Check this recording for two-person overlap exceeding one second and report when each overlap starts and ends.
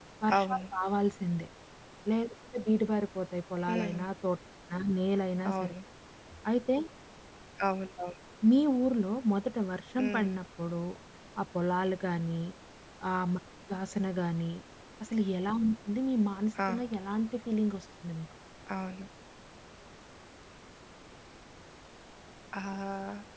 none

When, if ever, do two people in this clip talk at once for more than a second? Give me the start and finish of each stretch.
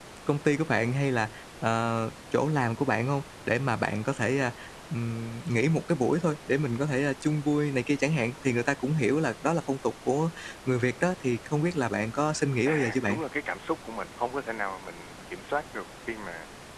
none

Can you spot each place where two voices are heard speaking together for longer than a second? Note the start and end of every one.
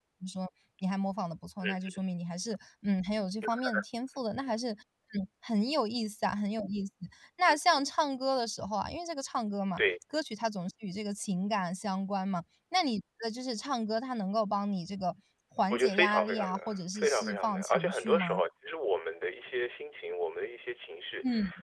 15.7-18.4

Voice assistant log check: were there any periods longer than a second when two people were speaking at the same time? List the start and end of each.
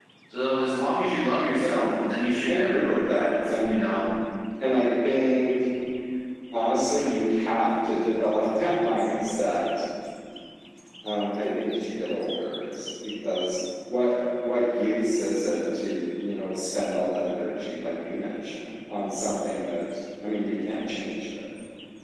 2.4-3.7

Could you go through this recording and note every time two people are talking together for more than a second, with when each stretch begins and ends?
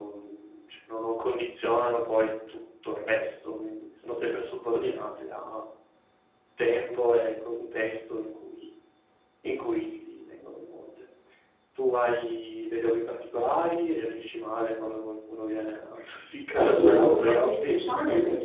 16.5-17.7

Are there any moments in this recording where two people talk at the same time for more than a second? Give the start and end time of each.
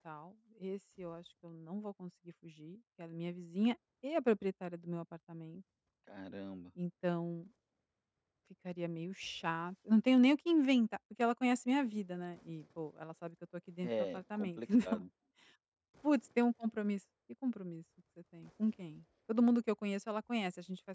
13.8-15.0

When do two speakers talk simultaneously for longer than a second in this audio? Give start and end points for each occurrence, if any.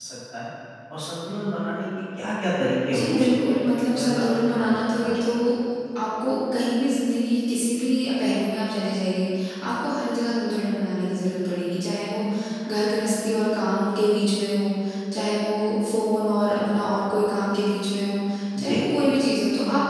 2.9-5.3

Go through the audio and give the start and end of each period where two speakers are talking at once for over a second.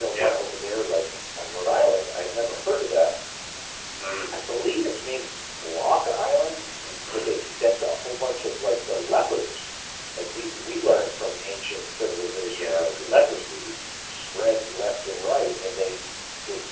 none

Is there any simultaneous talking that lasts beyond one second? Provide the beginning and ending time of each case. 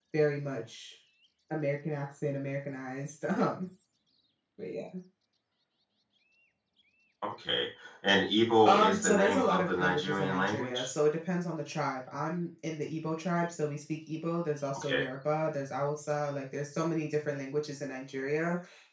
8.7-10.9

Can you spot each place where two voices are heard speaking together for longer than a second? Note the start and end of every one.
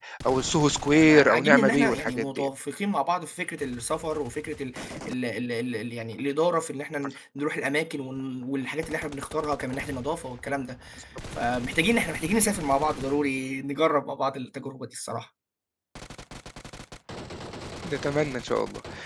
0.9-2.5

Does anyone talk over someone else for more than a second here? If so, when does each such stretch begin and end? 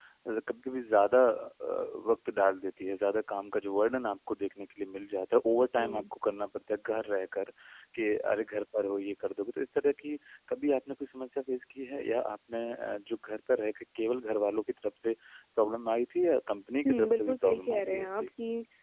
16.9-18.3

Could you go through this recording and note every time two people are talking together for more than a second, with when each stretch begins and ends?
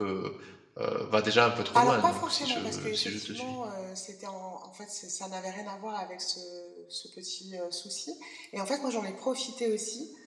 1.8-3.6

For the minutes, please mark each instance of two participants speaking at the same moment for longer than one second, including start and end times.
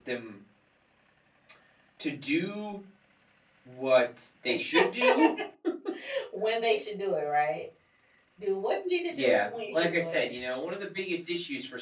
9.1-10.3

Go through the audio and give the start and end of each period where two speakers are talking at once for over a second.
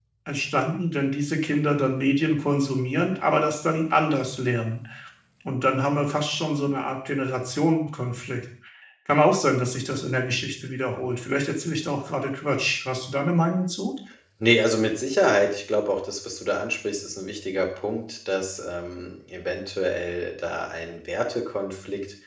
none

